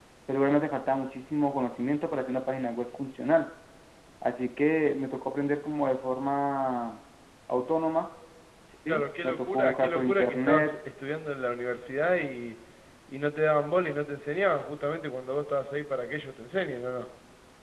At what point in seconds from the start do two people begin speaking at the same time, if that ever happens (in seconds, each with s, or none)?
8.9 s